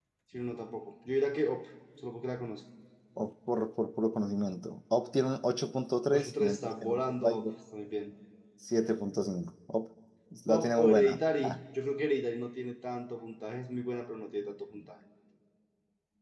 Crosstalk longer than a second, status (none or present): present